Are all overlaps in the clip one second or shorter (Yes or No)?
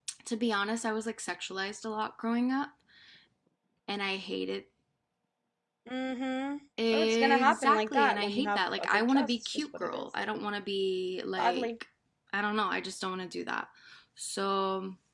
No